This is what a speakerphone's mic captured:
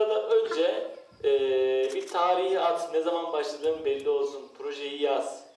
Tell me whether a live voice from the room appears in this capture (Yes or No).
No